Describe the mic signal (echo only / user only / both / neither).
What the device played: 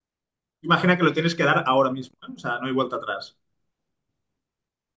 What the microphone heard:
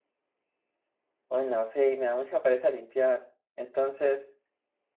user only